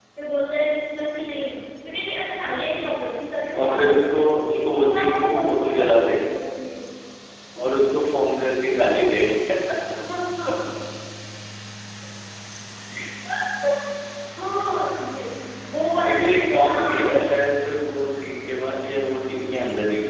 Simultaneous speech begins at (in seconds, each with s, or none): 3.6 s